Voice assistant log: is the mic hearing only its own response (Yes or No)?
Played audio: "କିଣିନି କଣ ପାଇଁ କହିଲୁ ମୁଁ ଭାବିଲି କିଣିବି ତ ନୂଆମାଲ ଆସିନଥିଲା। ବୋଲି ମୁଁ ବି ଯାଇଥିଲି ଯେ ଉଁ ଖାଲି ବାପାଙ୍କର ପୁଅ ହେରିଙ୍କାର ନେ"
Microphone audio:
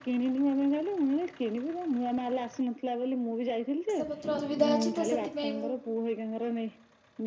No